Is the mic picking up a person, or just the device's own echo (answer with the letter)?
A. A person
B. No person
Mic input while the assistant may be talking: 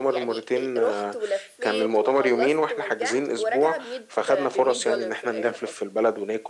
B